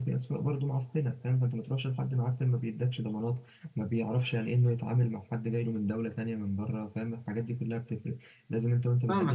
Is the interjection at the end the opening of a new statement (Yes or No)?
Yes